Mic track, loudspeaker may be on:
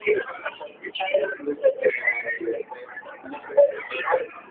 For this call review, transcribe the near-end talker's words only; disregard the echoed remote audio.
none

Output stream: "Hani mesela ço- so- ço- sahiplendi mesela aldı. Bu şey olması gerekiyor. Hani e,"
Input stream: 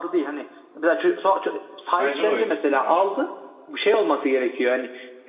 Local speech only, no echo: Bence de o etkili daha çok.

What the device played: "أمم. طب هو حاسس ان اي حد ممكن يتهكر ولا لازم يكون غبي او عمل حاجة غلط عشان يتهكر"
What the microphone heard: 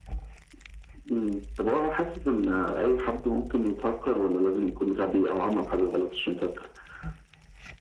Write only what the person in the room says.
none

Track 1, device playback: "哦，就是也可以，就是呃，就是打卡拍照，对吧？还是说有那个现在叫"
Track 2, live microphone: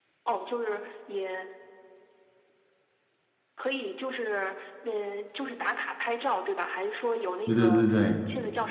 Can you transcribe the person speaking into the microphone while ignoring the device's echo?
对对对对，

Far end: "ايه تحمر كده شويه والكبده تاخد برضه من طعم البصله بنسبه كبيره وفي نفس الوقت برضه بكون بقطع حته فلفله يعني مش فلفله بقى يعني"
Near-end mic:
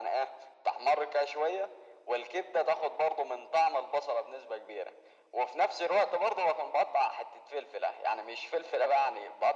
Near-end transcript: none

